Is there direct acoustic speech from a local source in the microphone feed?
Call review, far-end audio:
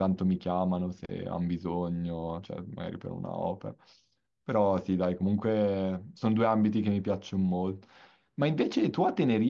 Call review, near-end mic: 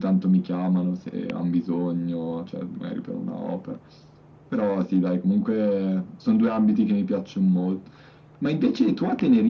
No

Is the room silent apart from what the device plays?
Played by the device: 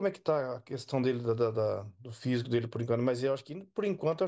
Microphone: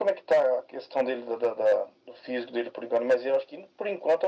Yes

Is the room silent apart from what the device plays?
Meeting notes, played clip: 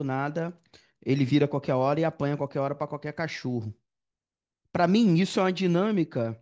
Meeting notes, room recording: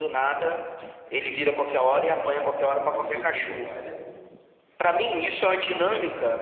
No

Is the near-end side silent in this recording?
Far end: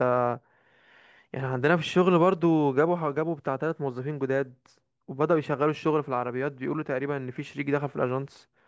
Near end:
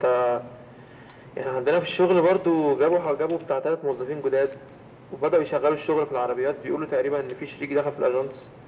Yes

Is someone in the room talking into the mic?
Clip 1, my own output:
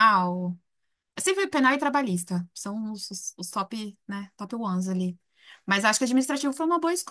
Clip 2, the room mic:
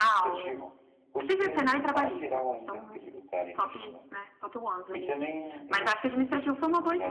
Yes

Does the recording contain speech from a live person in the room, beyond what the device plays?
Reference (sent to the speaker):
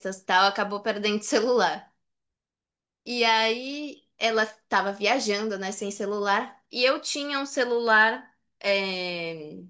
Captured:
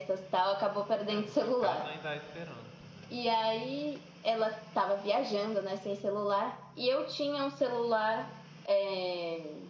Yes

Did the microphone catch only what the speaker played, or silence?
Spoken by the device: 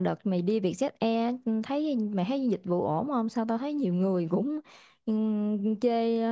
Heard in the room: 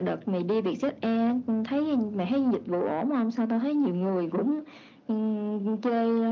Yes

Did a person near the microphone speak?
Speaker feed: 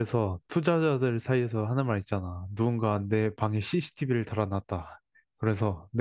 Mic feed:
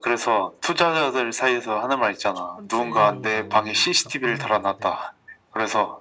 Yes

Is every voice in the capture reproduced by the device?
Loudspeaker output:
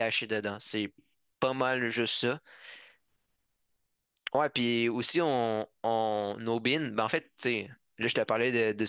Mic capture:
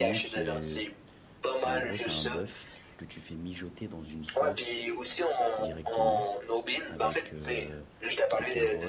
No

